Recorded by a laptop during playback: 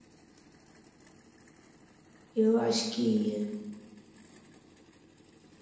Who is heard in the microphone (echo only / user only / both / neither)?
user only